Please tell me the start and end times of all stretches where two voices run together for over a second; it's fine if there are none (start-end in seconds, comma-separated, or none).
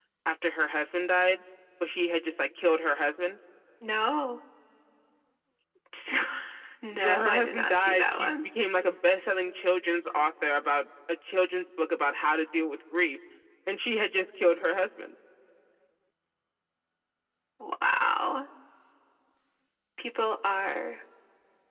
6.9-8.4